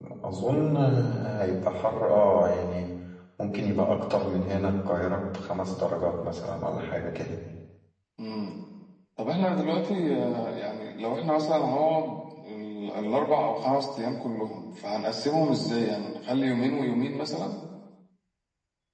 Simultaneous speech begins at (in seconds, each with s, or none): none